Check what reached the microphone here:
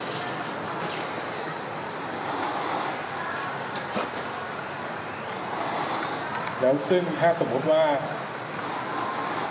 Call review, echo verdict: none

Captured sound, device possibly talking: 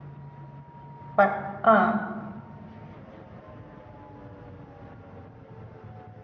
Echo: none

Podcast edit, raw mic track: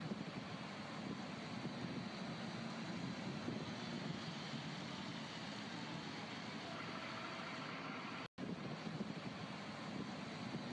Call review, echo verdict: none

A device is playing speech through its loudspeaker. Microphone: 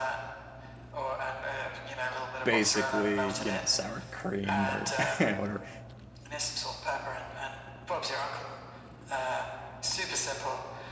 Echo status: present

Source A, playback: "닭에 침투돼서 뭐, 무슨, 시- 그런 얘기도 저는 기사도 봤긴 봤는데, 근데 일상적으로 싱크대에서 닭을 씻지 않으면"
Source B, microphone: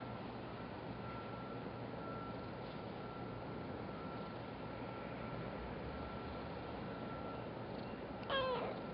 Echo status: none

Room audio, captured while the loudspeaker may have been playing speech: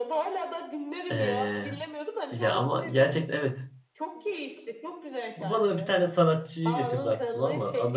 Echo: present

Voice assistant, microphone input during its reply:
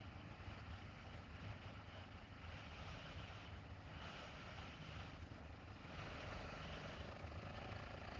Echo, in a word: none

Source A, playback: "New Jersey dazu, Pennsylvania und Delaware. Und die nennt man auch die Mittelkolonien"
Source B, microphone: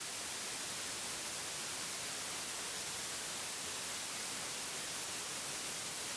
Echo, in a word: none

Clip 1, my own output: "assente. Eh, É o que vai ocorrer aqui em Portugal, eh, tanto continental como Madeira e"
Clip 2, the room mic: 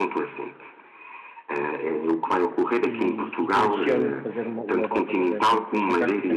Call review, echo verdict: present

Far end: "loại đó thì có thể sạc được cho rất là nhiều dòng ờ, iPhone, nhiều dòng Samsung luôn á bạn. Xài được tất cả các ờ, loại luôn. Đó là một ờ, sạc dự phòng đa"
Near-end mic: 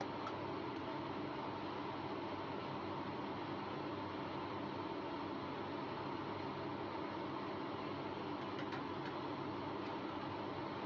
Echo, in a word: none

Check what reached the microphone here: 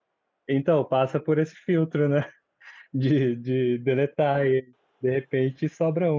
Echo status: none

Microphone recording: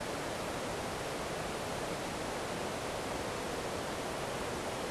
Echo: none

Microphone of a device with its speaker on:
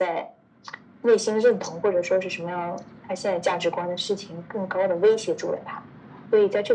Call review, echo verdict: present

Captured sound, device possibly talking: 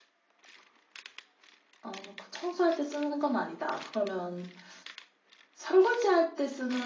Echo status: none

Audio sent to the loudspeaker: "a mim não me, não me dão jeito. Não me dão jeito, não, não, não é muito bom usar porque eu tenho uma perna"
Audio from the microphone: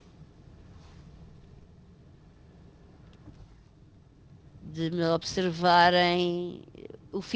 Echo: none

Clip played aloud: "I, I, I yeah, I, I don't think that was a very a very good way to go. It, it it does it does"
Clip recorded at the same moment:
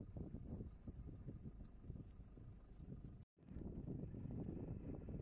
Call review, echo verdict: none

